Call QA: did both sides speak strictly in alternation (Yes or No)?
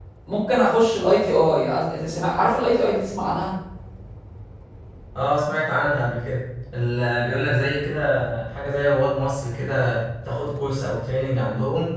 Yes